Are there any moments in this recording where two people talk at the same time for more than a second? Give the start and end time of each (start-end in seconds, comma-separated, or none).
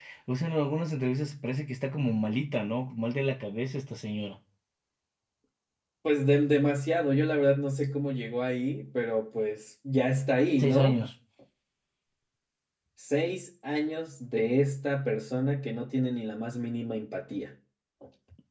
none